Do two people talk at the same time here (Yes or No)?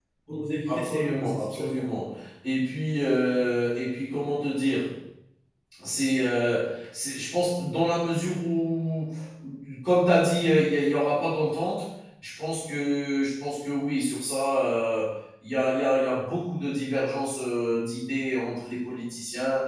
Yes